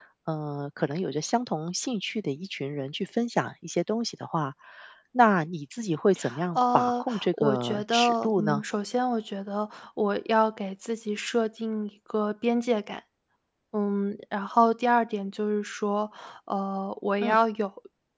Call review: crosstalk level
present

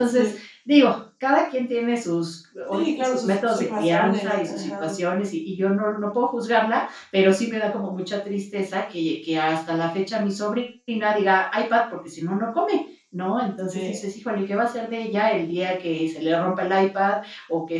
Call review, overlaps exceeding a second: present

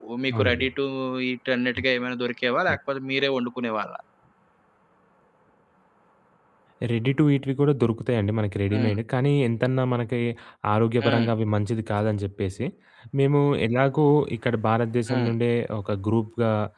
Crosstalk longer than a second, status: none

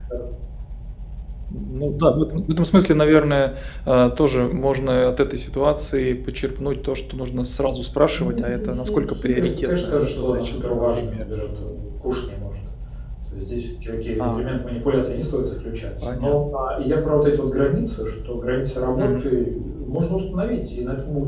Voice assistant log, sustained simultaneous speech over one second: present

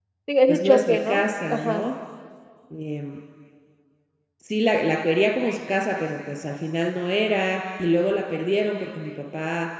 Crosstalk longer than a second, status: present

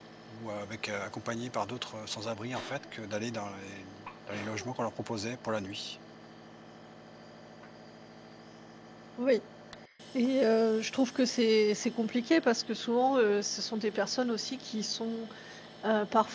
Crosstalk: none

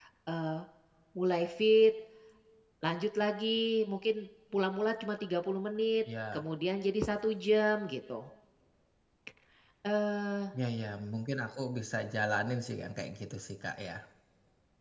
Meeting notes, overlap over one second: none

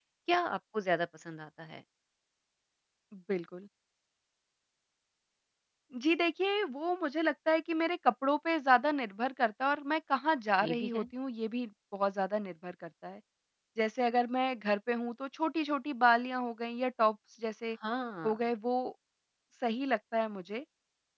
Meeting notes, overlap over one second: none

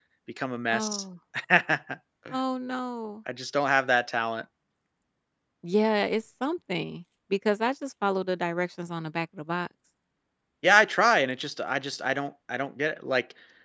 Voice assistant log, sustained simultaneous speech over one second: none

